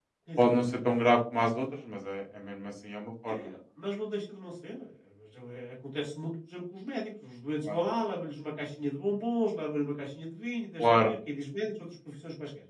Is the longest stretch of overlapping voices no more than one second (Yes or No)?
Yes